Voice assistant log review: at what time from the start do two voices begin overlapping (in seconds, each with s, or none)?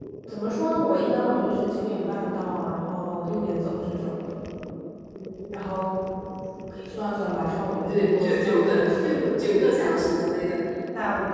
7.6 s